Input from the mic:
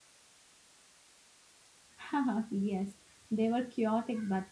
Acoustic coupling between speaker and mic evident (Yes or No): No